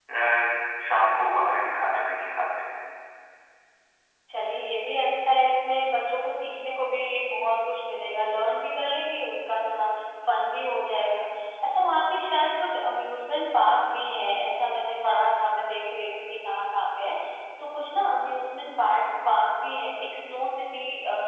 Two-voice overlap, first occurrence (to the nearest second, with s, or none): none